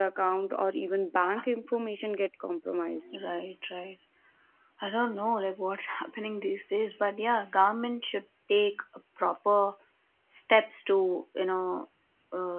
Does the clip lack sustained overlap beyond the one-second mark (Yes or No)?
Yes